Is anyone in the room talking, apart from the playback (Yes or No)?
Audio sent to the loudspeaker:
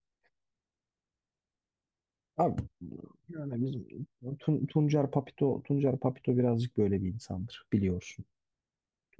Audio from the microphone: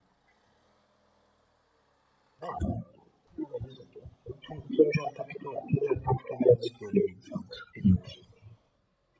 No